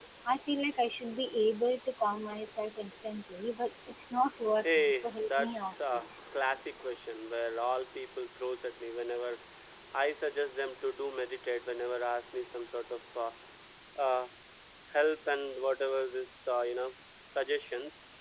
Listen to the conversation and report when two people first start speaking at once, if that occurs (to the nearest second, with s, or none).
5 s